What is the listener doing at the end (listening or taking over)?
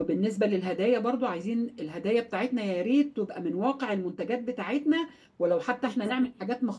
listening